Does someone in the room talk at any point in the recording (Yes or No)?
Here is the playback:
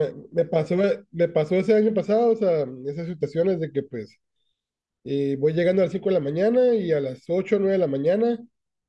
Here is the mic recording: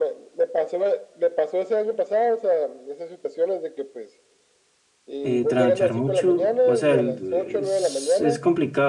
Yes